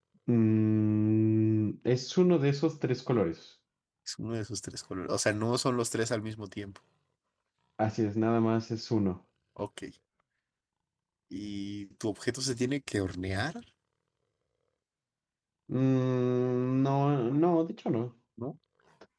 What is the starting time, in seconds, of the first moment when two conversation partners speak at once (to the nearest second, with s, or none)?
none